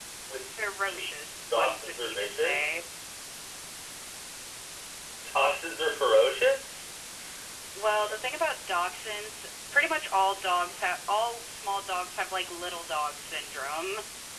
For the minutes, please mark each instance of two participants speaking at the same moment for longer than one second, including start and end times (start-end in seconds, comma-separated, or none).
1.5-2.8